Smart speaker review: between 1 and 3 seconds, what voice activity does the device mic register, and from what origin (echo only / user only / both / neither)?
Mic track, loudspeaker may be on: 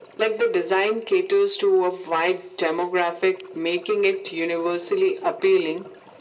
echo only